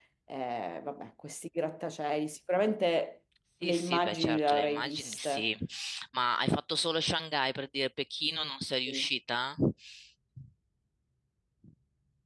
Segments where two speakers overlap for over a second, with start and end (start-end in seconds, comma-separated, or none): 3.7-5.5